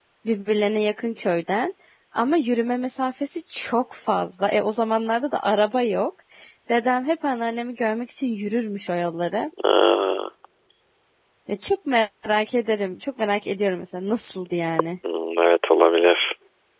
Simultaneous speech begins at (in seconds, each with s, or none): none